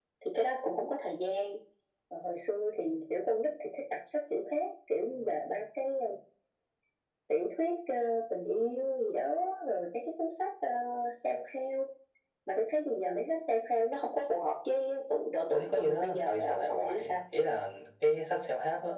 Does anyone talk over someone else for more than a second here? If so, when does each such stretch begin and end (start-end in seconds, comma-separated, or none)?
15.5-17.2